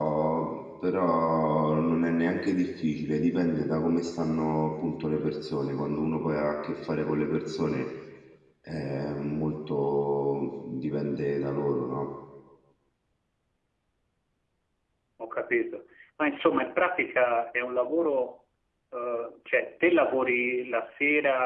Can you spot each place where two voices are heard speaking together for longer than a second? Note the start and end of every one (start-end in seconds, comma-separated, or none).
none